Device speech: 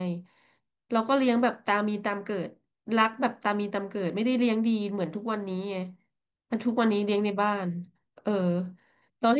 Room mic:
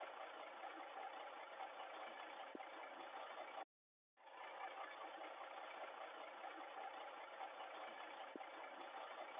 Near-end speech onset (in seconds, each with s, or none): none